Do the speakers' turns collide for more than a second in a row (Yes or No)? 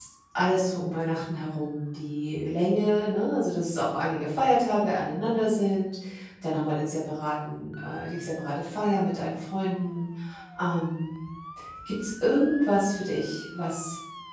No